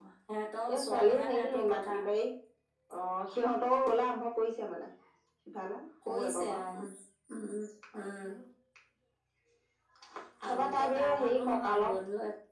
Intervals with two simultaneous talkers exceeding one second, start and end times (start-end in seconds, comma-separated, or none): 0.7-2.0, 10.4-12.0